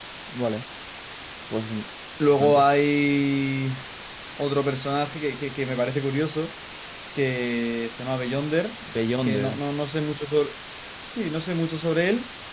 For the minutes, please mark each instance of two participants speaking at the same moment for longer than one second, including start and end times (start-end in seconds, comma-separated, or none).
none